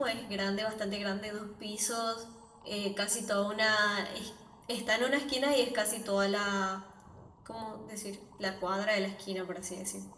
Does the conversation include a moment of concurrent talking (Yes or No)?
No